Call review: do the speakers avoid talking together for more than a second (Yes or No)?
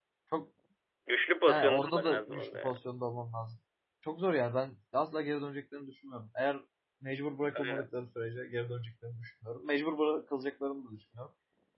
No